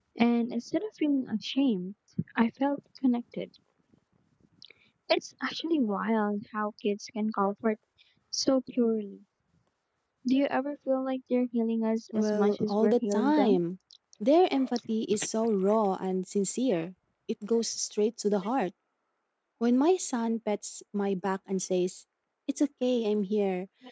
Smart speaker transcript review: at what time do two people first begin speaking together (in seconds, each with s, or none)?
12.1 s